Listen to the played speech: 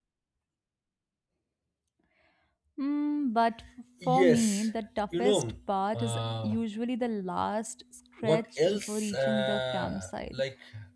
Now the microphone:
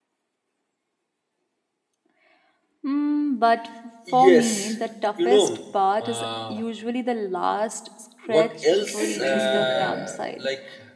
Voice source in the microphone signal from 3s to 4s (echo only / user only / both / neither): echo only